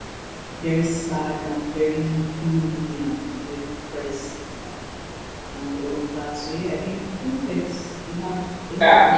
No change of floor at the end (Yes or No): No